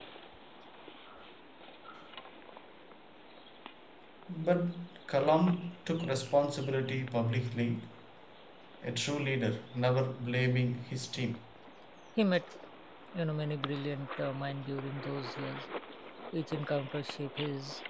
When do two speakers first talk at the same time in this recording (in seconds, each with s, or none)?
none